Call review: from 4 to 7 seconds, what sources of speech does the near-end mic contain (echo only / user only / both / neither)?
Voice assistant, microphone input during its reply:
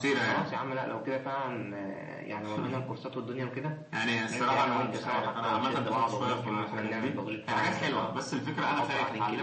echo only